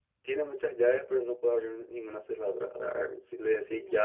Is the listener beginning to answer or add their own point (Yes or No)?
No